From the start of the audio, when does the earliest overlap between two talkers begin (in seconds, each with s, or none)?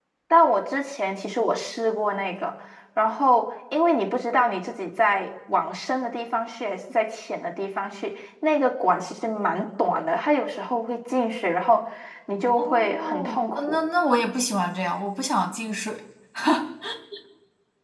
12.6 s